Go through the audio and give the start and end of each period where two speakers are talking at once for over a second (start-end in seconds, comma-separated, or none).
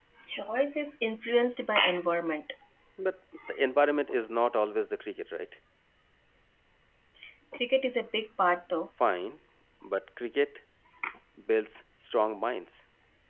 none